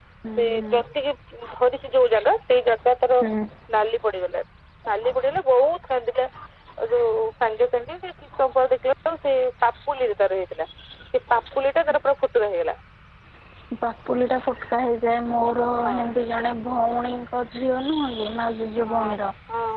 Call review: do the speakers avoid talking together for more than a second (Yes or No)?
Yes